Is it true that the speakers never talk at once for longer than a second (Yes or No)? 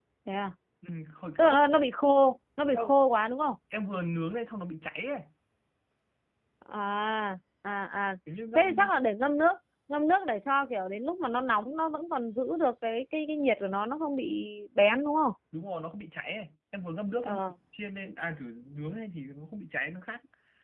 Yes